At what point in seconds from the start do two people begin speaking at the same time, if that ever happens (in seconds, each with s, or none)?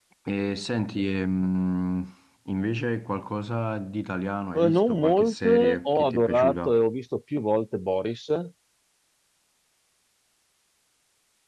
4.5 s